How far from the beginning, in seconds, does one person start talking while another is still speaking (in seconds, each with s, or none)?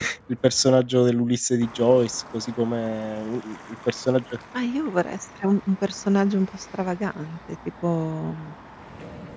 none